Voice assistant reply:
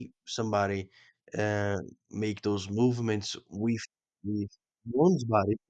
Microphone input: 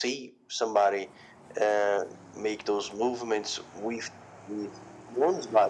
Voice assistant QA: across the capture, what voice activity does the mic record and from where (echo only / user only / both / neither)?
echo only